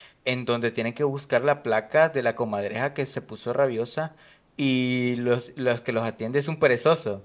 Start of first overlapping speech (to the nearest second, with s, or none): none